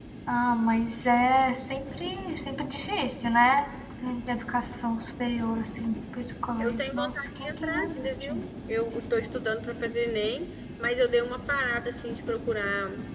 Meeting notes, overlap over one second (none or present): present